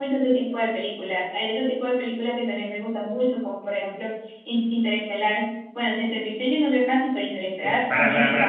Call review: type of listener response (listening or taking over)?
taking over